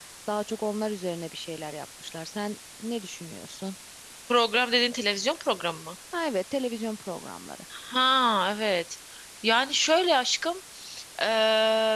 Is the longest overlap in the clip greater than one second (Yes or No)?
No